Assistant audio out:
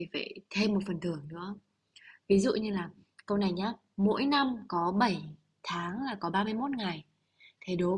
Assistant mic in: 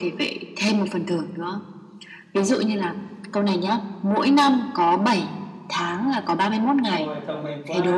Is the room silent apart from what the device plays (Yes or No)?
No